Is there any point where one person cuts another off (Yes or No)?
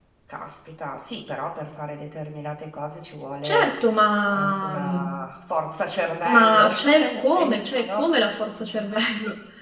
Yes